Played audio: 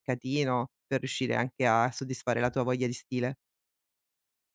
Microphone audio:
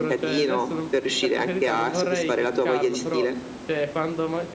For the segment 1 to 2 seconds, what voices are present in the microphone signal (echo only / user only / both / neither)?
both